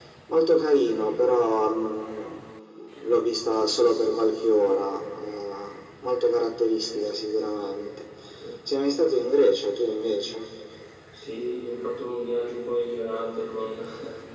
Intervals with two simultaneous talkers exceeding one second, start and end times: none

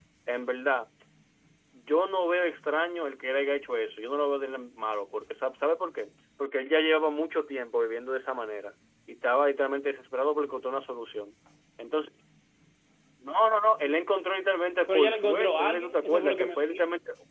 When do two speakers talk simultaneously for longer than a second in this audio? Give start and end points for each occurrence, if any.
14.9-16.8

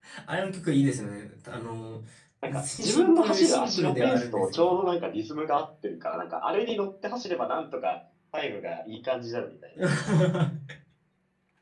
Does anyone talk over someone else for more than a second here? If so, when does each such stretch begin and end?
2.6-4.7

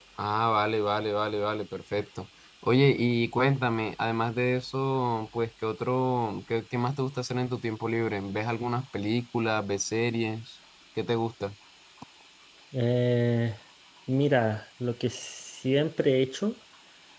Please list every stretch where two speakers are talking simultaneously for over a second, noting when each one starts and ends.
none

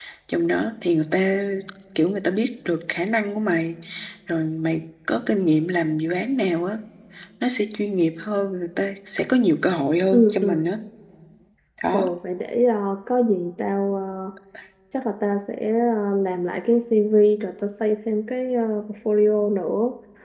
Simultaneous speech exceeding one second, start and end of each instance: none

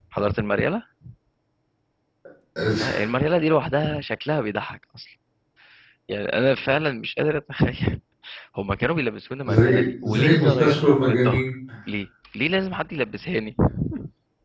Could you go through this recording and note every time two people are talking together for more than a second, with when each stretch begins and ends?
9.5-11.5

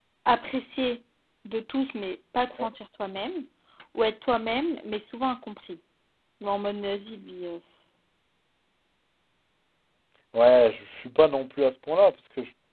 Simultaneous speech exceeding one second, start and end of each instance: none

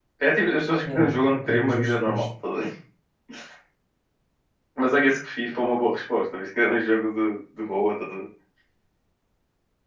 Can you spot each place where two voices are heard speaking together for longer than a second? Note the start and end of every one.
0.9-2.2

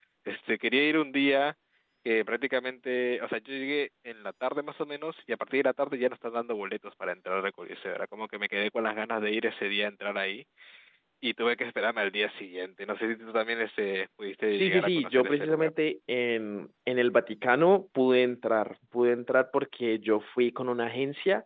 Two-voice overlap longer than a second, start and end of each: 14.5-15.7

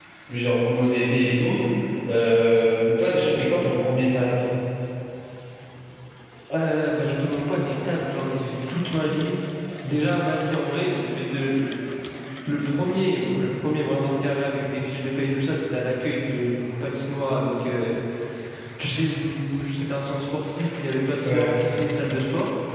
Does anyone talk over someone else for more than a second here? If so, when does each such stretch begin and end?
none

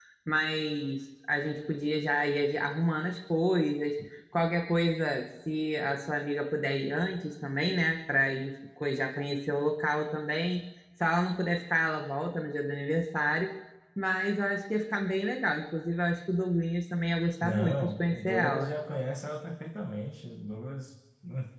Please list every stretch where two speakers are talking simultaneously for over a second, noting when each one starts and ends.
17.4-18.7

